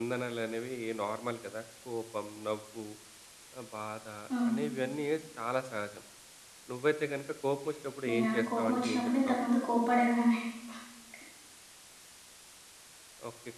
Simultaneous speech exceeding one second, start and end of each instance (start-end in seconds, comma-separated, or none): 8.1-9.4